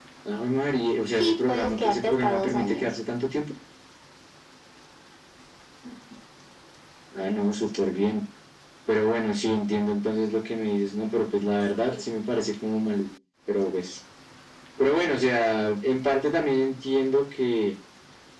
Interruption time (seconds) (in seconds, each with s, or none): 1.2 s